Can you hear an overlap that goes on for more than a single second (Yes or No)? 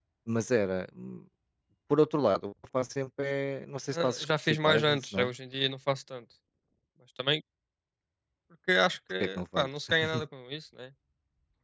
Yes